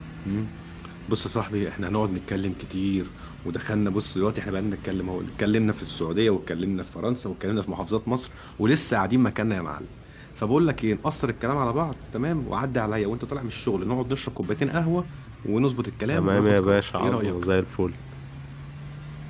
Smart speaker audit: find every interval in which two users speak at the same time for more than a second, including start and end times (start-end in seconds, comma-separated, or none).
16.1-17.4